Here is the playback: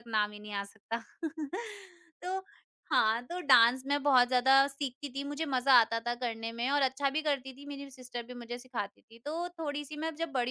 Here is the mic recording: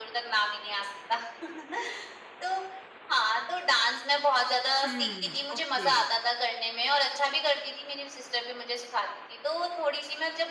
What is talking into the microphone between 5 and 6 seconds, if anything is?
both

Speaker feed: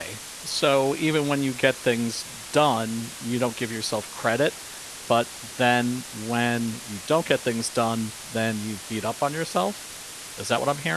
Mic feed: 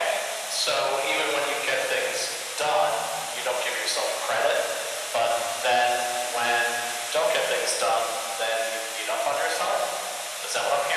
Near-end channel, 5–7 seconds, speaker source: echo only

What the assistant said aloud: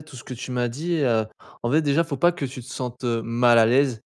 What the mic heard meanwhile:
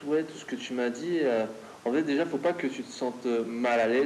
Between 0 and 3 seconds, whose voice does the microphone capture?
echo only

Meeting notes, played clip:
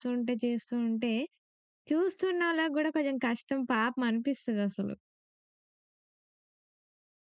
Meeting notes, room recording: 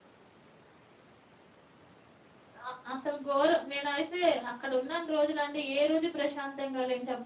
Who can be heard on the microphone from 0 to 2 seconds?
neither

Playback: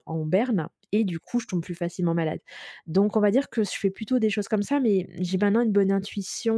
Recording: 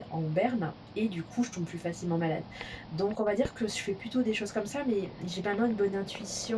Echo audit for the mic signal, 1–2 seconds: echo only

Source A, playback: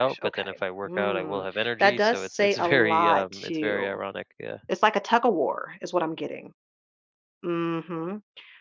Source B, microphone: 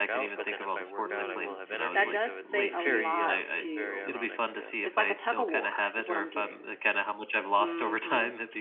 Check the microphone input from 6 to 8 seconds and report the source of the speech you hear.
both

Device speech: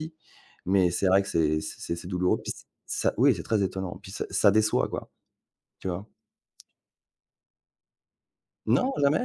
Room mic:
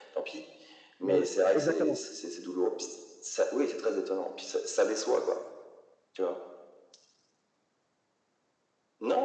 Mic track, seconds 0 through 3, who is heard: both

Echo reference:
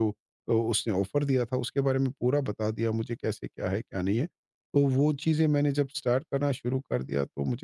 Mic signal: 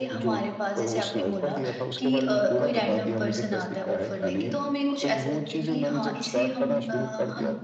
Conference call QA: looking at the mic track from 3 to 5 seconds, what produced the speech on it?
both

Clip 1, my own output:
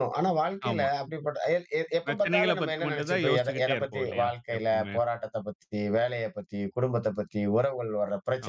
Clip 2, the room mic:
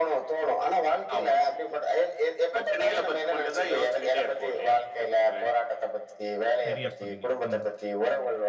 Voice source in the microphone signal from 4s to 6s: echo only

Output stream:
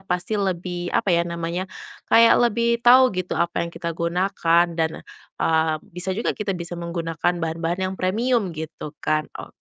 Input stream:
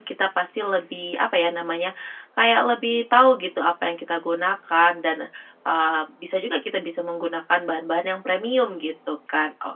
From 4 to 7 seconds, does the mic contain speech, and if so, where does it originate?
echo only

